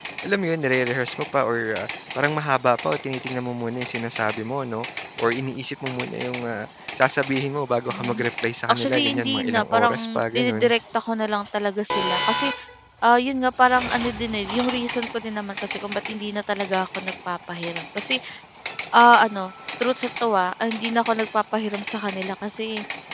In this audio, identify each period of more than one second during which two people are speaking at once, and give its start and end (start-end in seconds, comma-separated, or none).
8.7-10.7